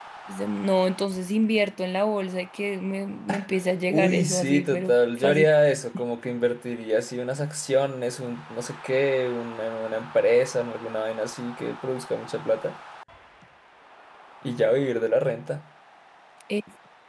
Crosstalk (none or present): present